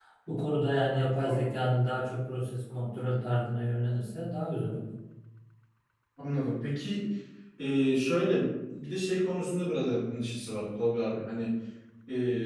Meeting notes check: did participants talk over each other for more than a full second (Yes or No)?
No